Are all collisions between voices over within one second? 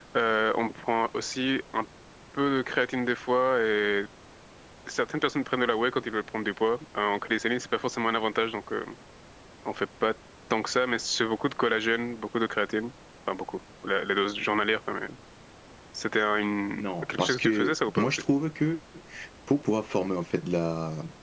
No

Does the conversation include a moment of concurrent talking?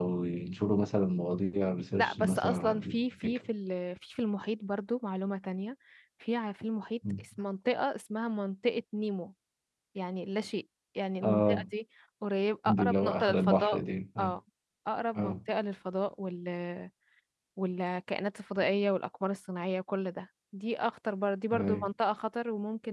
Yes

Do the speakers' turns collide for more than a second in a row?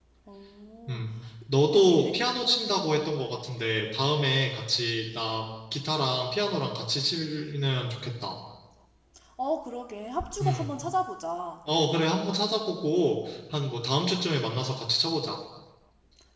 Yes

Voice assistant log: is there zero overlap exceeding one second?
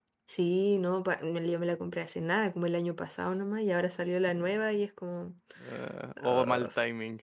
Yes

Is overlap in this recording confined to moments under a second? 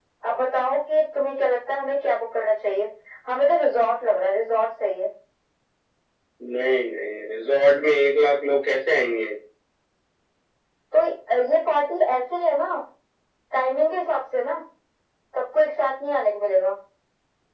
Yes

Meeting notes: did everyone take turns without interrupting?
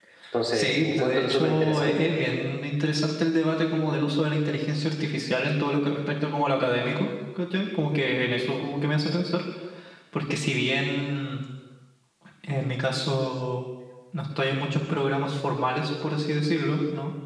No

